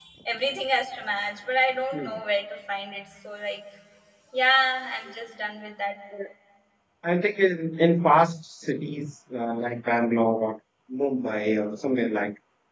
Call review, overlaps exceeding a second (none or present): none